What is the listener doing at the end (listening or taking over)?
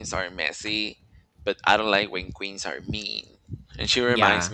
listening